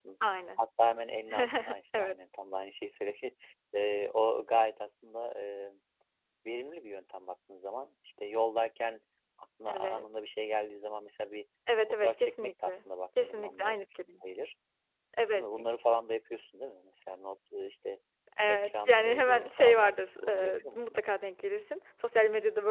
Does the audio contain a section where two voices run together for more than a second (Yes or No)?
Yes